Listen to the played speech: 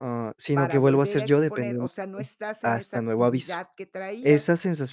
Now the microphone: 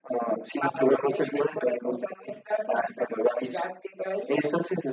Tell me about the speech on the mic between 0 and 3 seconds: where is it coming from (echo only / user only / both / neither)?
echo only